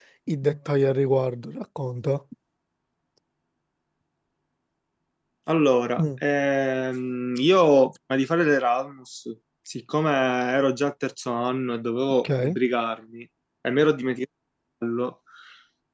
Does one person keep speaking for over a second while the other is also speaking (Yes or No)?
No